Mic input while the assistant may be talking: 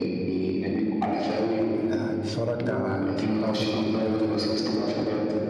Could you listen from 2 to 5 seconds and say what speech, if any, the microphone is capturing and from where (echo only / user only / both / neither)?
both